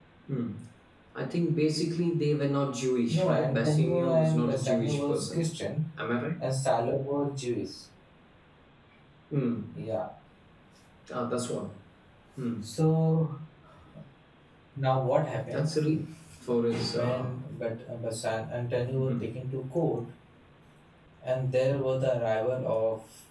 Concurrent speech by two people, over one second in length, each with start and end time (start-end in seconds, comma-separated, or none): 3.1-5.5